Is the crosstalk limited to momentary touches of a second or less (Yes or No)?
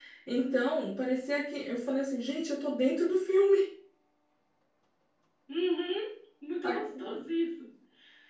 Yes